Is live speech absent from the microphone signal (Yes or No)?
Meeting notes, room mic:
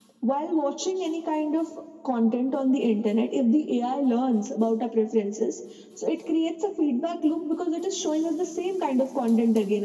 Yes